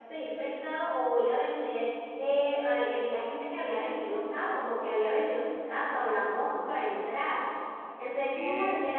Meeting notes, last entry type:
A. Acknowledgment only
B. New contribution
A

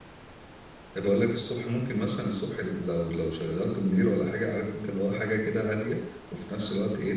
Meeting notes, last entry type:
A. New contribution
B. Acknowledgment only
B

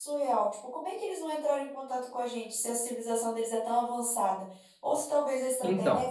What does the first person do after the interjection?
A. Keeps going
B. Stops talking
A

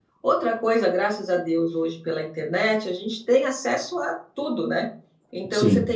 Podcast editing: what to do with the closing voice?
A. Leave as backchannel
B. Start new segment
A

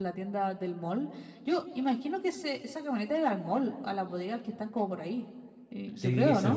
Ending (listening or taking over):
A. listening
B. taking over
B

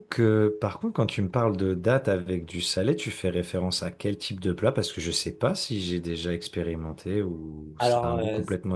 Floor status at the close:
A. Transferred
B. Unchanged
A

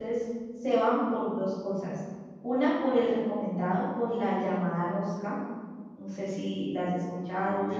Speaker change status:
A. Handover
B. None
A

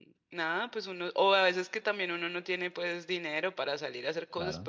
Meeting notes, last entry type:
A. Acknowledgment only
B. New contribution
A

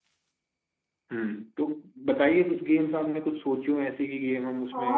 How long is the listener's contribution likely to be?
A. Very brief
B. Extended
B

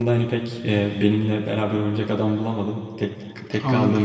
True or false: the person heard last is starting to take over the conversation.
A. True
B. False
B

